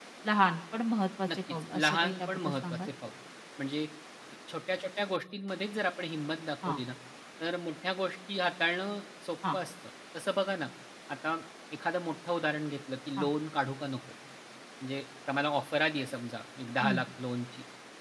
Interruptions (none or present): present